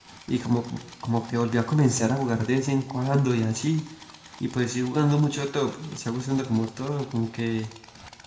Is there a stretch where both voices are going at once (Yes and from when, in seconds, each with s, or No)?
No